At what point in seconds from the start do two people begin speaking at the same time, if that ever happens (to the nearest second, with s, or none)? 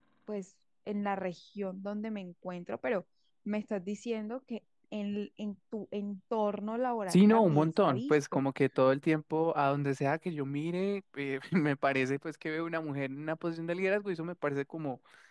7 s